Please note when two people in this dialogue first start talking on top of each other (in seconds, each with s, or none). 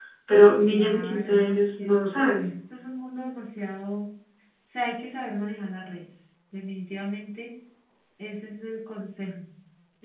0.7 s